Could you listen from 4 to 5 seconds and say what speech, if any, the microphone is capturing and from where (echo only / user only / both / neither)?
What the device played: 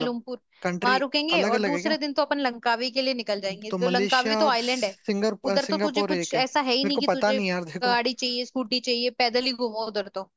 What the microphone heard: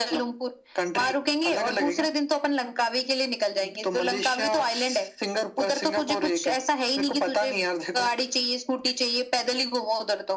echo only